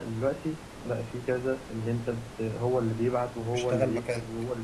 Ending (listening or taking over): listening